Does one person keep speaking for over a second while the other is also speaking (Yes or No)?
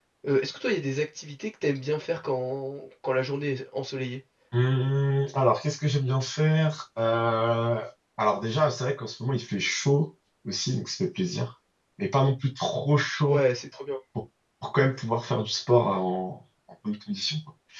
No